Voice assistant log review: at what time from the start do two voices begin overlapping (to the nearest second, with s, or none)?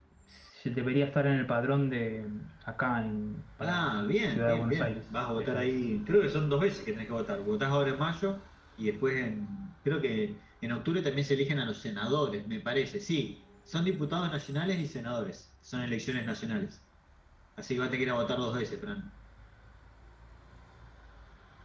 4 s